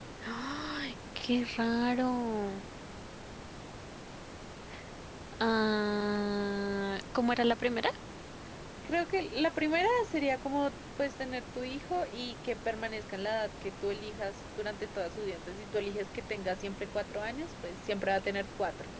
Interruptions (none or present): none